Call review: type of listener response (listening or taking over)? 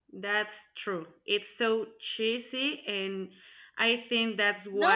taking over